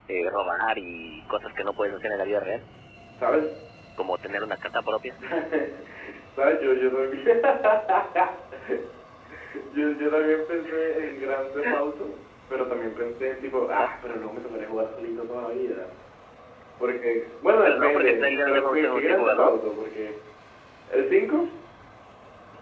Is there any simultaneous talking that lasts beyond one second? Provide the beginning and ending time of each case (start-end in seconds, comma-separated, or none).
17.6-19.6